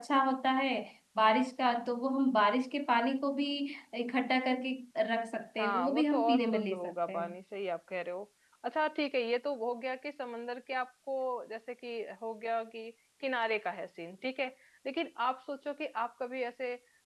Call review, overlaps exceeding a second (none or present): present